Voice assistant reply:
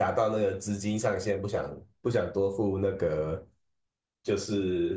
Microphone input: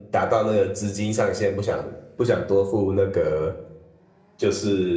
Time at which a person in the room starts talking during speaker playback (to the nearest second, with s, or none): none